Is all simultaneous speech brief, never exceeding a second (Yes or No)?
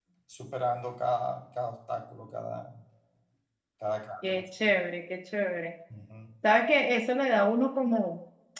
Yes